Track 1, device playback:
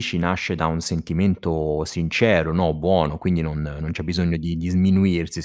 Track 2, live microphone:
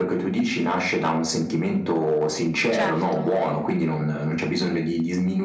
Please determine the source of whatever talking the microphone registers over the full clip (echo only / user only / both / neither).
both